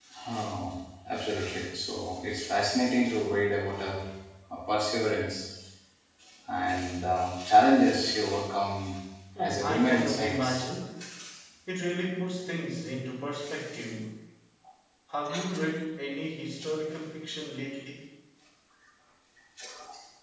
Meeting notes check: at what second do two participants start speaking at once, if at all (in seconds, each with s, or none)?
9.4 s